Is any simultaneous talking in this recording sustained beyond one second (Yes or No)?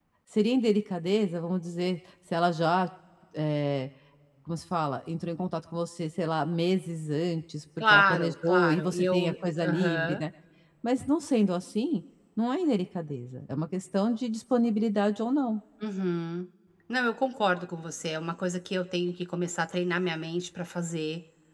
Yes